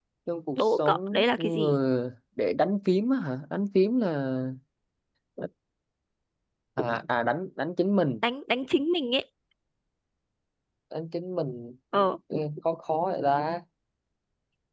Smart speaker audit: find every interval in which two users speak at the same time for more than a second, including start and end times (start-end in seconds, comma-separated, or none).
0.6-1.8